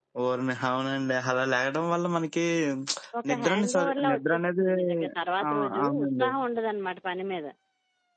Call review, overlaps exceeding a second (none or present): present